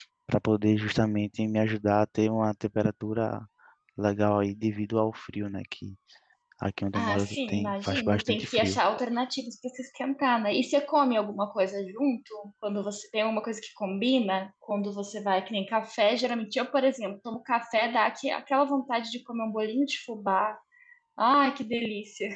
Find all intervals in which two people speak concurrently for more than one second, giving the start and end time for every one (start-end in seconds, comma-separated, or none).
7.0-8.8